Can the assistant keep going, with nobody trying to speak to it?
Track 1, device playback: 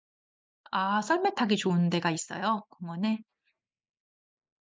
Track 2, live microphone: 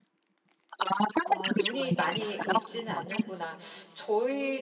No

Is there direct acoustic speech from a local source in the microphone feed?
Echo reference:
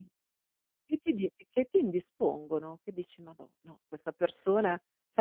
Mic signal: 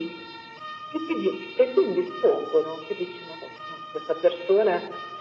No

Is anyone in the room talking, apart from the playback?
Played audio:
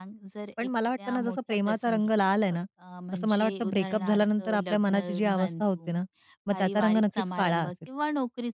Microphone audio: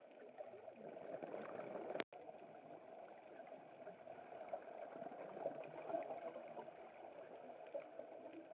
No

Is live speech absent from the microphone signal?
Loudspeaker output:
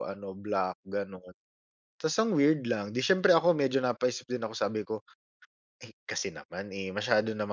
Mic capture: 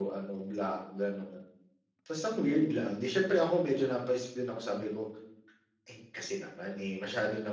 Yes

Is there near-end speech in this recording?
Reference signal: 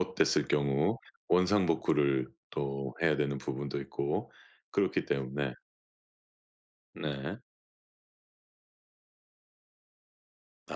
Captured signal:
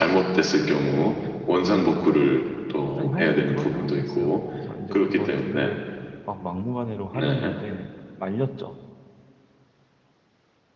Yes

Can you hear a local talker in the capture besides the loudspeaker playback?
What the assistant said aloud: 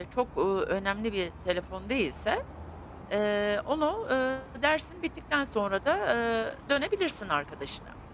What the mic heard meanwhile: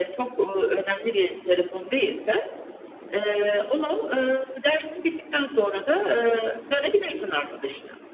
No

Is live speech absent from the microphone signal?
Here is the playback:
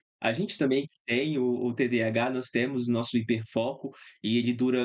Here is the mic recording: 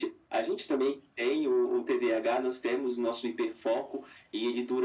Yes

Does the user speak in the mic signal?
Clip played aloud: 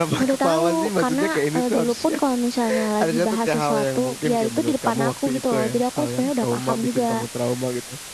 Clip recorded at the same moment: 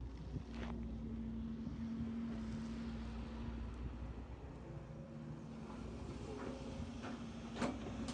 No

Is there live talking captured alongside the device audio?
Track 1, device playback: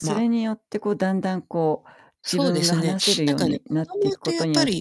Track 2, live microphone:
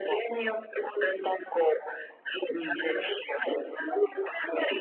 Yes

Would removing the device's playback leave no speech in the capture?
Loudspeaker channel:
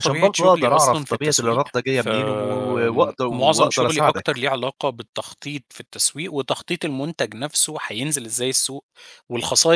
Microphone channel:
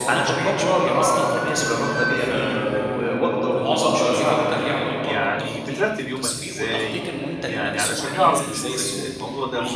No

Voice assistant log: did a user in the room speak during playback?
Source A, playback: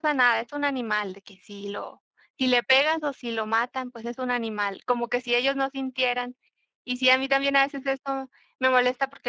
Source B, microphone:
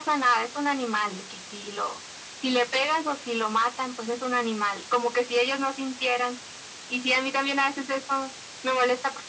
No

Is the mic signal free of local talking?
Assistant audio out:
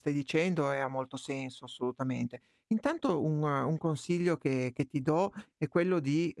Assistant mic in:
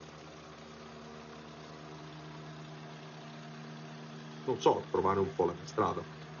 No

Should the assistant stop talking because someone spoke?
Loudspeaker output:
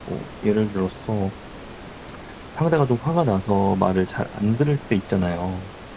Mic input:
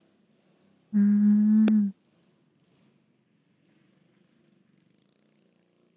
Yes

